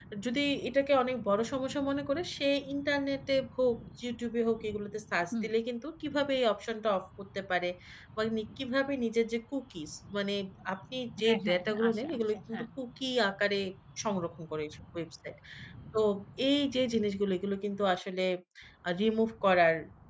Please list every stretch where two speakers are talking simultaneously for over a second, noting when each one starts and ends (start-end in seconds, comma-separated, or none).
11.2-12.7